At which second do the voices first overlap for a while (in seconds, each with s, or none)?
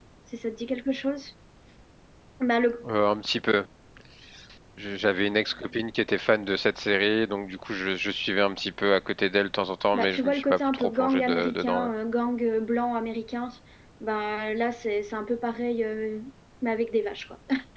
9.9 s